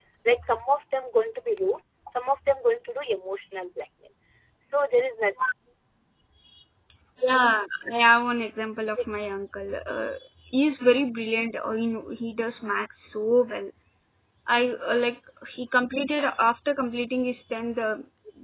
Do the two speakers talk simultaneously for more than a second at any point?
No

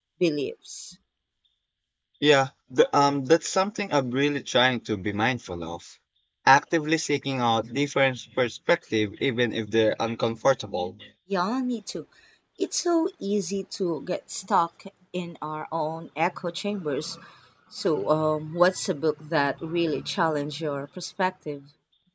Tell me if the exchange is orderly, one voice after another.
Yes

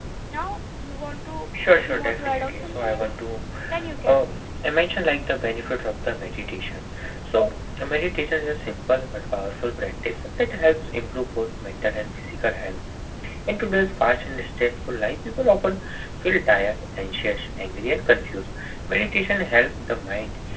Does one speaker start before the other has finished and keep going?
Yes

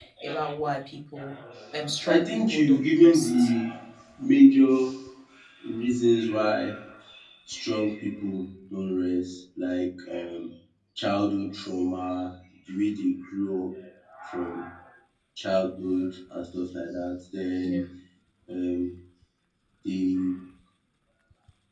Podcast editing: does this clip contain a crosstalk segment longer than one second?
Yes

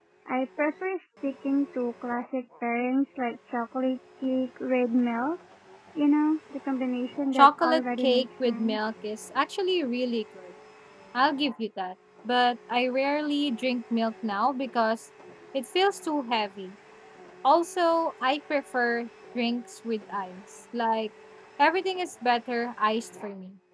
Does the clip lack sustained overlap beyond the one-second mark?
No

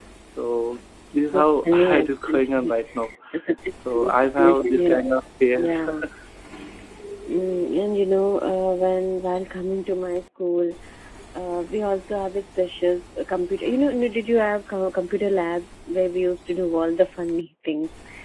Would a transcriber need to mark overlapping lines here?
Yes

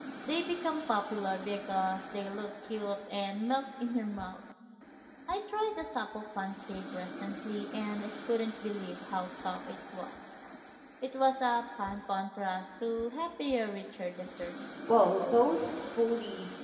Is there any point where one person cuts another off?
No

